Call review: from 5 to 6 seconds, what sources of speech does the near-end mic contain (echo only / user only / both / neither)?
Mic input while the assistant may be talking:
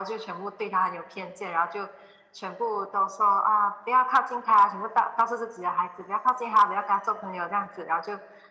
echo only